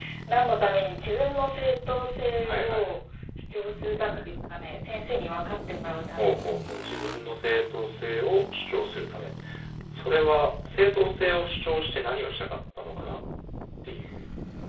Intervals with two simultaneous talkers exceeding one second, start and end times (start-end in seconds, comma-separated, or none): none